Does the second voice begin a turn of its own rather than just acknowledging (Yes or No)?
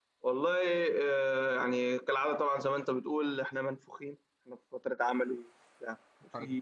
No